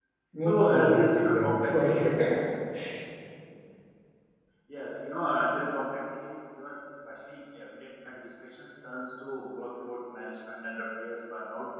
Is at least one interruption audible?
Yes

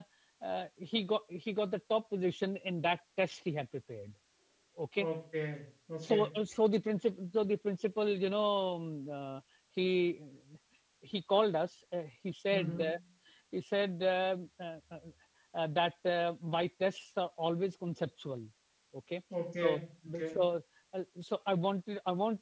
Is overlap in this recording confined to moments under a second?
Yes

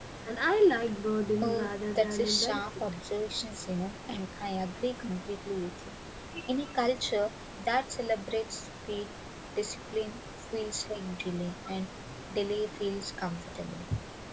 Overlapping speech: Yes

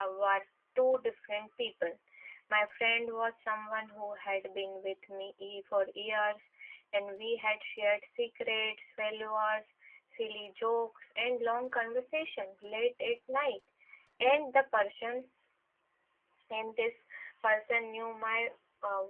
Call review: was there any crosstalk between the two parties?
No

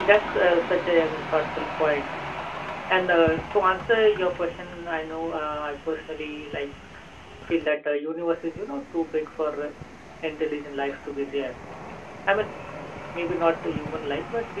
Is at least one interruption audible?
No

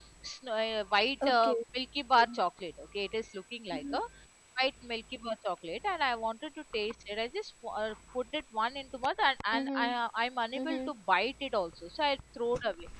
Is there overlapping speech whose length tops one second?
No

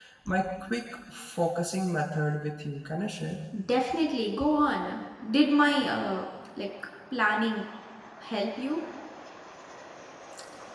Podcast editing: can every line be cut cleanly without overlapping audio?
Yes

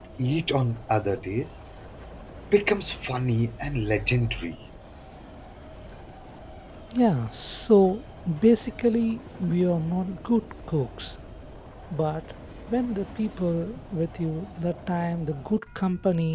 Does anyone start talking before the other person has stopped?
No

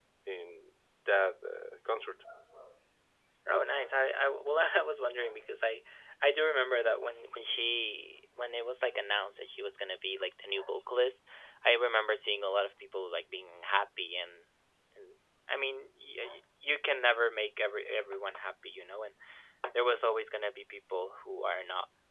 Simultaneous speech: No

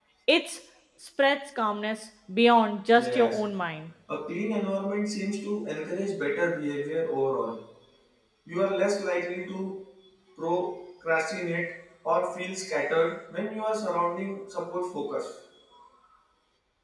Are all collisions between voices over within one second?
Yes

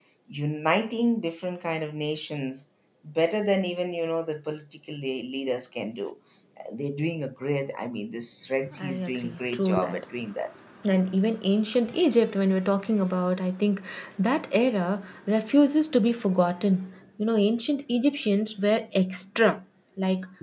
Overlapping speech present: Yes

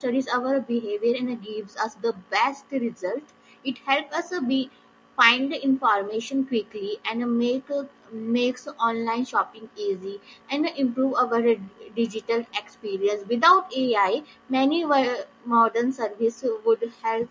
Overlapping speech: No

